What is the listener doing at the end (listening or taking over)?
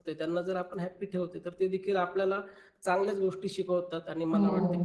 listening